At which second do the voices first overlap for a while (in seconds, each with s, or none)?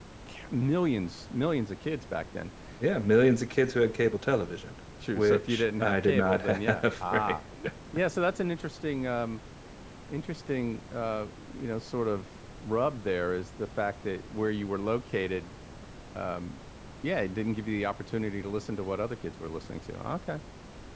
5.0 s